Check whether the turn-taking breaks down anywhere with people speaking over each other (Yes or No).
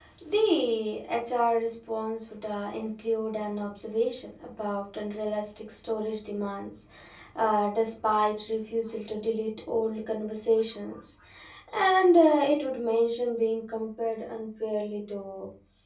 No